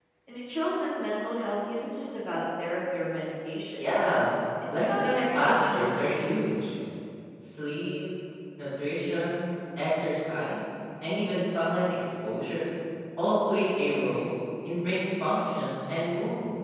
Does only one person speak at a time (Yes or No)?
No